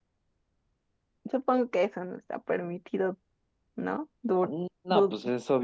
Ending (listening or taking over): taking over